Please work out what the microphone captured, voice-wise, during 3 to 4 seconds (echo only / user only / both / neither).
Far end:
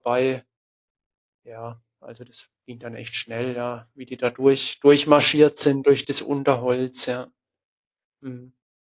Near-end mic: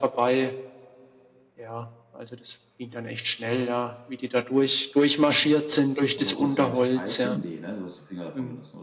echo only